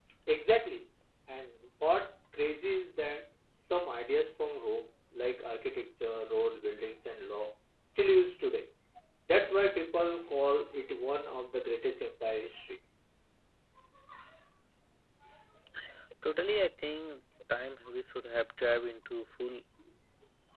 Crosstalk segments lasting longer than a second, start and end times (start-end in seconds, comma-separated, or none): none